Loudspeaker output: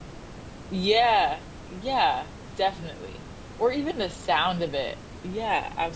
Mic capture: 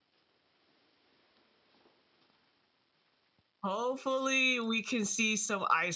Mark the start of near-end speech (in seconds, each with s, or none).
3.6 s